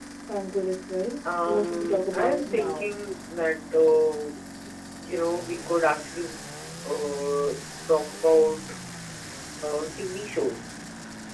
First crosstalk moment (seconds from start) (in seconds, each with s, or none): 1.2 s